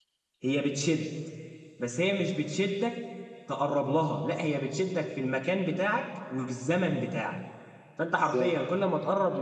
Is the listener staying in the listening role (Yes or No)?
Yes